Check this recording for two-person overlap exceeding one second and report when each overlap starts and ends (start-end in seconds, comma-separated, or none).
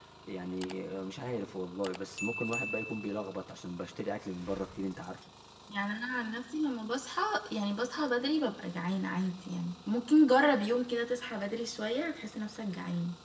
none